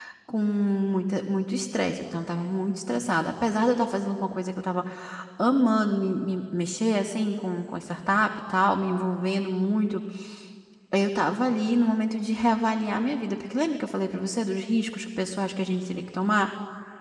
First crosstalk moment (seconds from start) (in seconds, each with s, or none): none